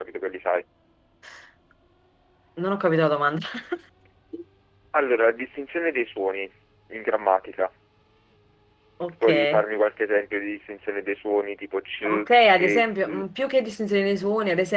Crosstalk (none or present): present